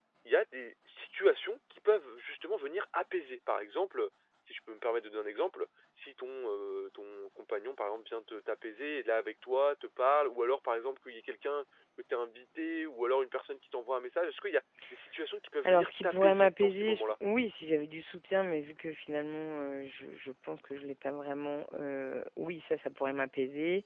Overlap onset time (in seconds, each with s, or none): 15.6 s